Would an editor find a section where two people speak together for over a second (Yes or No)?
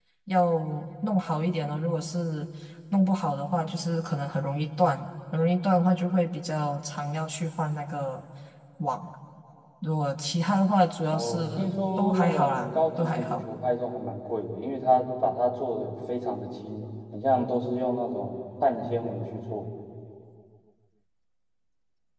Yes